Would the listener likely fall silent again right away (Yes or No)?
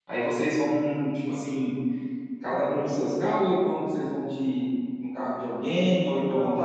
No